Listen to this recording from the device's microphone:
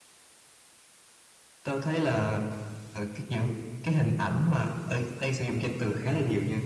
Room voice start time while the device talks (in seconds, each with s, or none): none